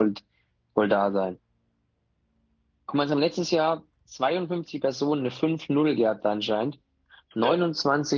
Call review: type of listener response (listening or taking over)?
listening